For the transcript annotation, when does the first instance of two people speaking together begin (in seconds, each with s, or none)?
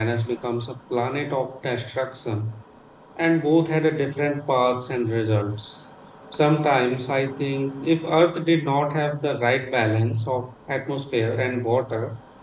none